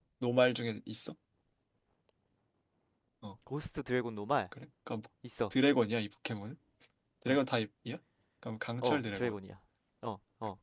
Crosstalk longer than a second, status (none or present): none